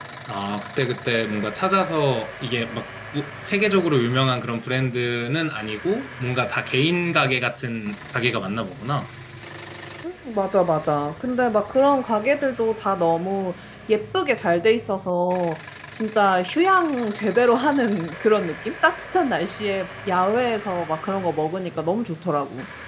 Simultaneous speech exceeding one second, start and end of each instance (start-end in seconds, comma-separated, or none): none